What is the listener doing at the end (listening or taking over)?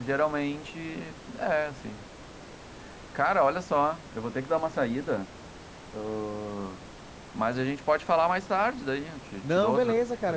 taking over